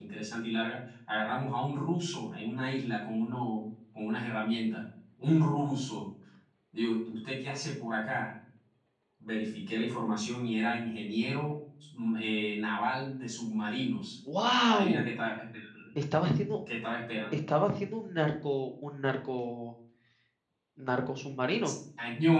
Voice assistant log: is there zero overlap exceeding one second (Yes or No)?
Yes